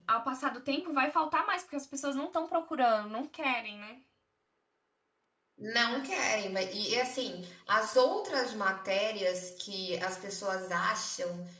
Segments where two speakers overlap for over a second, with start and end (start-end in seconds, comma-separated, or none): none